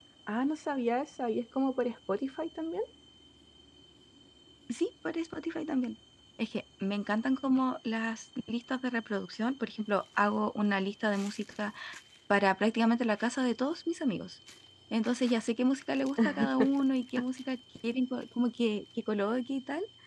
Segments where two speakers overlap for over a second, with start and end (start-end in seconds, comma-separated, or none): none